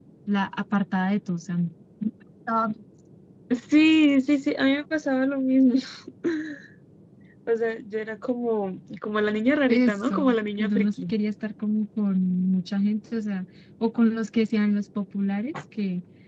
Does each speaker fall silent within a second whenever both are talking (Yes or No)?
No